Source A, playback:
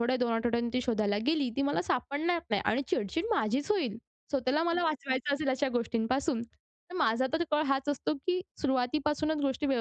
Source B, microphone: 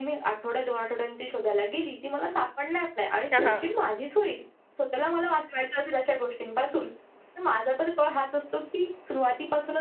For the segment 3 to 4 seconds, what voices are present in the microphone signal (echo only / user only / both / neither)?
both